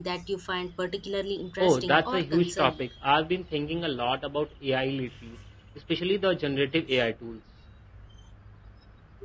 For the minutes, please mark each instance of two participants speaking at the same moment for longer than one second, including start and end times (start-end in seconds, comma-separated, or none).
1.6-2.8